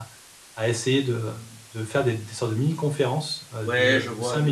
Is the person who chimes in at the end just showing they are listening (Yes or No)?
No